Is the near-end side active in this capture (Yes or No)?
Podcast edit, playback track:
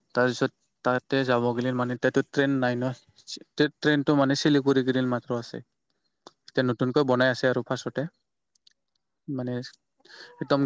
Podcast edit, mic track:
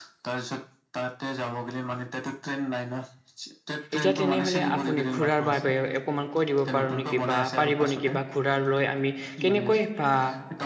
Yes